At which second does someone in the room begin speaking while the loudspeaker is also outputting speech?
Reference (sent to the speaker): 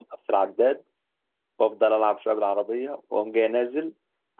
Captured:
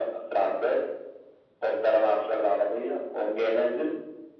none

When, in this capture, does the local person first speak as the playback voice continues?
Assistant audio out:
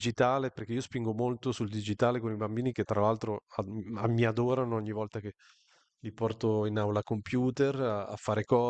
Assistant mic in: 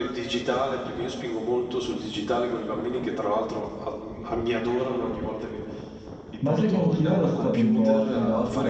6.4 s

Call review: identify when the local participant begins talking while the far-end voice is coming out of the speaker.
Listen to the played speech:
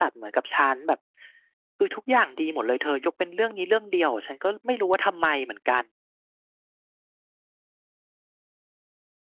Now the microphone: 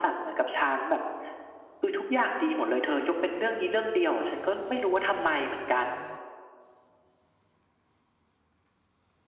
none

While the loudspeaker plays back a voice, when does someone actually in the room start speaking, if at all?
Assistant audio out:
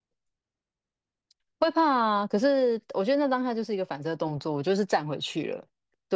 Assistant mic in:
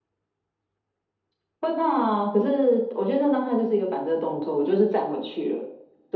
none

